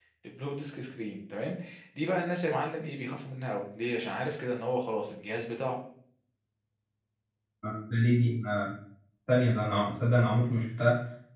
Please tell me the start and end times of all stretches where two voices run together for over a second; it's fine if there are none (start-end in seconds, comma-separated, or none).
none